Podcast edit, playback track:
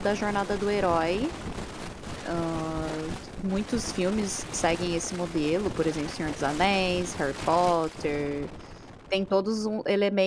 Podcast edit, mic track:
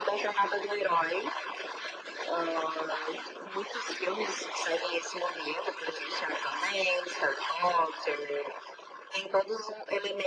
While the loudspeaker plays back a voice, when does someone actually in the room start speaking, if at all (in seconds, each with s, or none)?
none